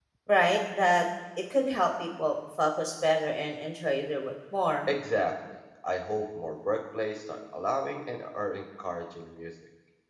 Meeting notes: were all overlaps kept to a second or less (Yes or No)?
Yes